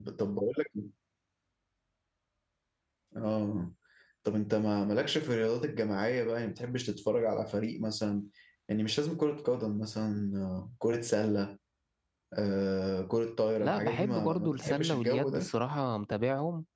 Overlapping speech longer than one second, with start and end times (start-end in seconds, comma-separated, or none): 13.6-15.5